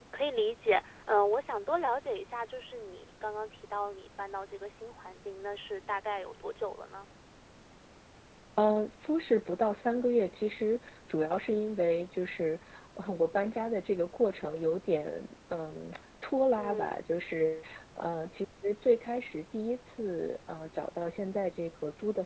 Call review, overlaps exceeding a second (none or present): none